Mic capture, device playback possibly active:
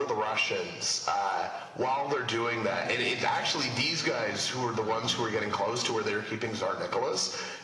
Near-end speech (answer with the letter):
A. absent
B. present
B